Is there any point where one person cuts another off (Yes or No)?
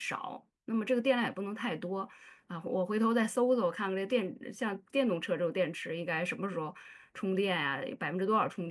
No